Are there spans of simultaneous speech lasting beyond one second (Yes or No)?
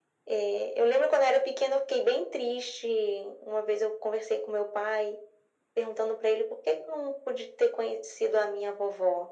No